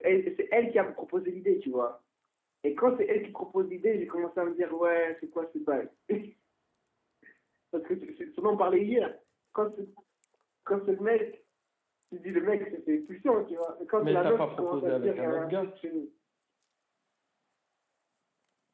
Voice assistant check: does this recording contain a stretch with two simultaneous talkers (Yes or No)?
Yes